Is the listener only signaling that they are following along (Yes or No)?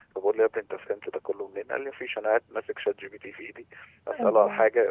Yes